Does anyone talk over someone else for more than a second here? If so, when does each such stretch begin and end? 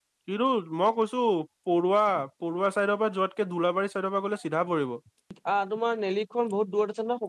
none

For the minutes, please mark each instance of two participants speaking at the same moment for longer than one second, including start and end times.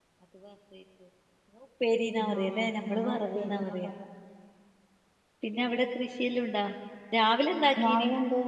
2.4-3.9

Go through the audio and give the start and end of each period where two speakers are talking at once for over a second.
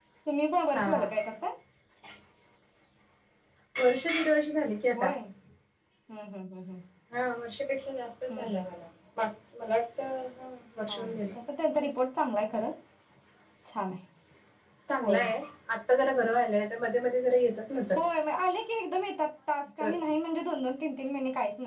none

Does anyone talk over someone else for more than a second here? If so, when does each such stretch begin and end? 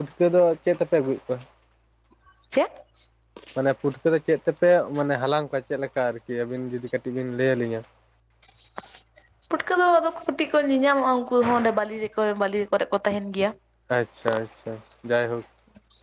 none

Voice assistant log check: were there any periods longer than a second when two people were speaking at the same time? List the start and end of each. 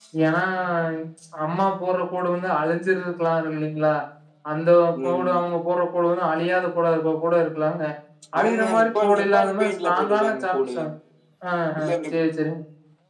8.4-10.7

